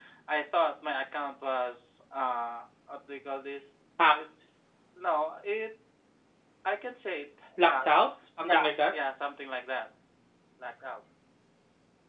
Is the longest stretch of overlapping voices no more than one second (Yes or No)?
Yes